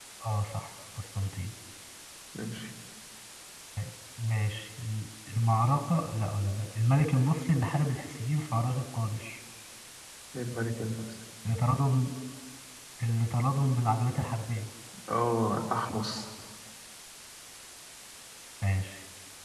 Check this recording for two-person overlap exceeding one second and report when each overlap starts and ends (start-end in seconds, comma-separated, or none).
none